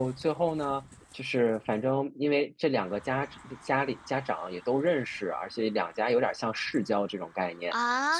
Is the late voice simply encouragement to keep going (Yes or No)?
Yes